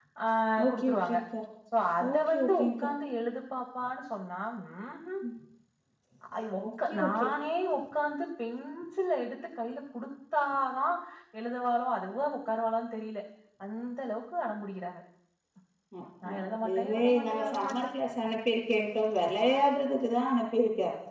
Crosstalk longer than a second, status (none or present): present